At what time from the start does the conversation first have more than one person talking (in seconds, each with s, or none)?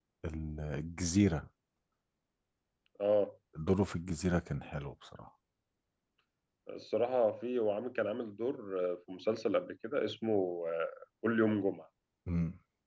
none